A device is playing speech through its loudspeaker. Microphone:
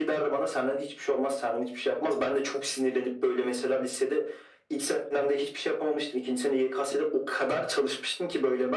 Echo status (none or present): present